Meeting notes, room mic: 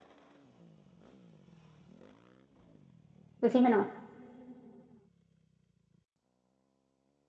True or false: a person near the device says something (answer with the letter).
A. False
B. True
B